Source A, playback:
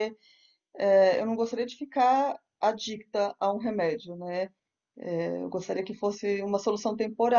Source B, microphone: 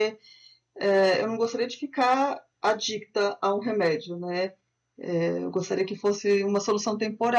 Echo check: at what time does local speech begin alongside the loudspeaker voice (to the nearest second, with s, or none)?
none